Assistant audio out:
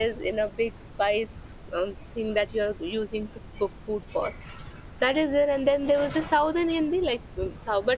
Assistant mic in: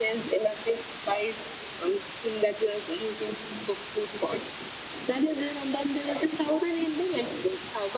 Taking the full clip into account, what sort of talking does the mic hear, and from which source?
echo only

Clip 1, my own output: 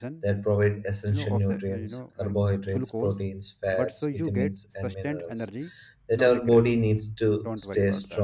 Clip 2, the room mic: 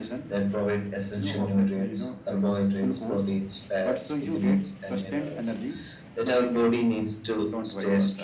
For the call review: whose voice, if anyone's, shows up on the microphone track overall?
echo only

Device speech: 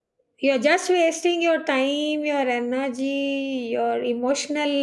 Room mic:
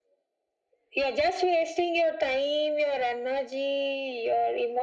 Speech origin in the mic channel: echo only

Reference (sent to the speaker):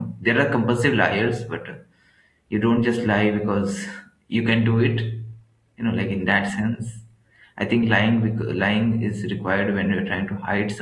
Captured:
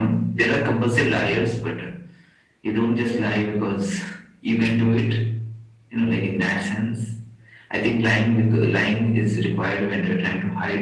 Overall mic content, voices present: echo only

